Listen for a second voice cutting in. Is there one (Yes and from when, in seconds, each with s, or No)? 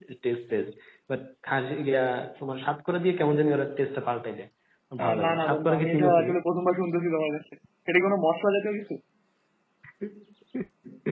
Yes, from 5.0 s